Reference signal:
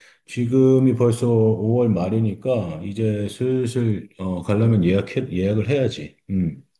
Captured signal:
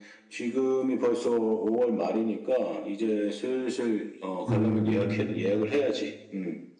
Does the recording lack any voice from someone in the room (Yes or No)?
No